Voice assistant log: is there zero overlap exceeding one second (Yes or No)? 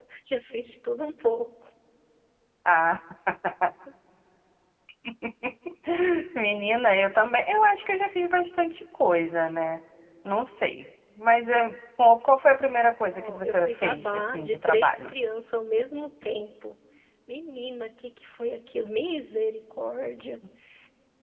No